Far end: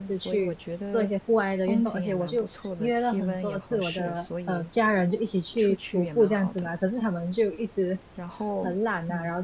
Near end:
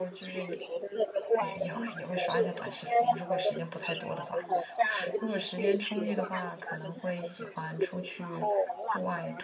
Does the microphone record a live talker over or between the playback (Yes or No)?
Yes